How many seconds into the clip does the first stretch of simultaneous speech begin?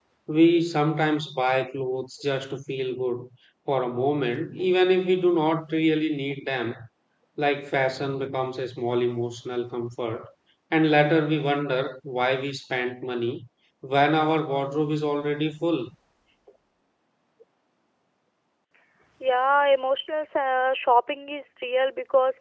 none

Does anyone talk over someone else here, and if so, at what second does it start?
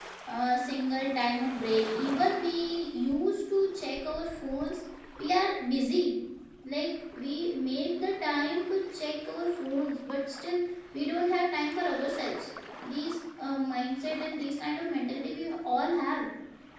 none

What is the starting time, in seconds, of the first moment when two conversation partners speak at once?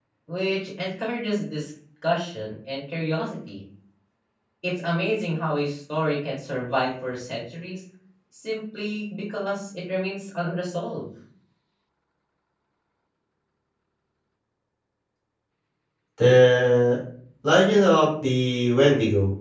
none

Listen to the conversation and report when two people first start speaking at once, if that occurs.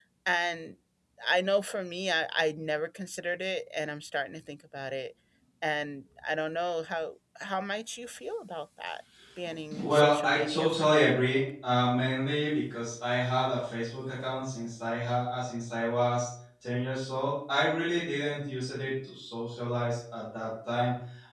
9.7 s

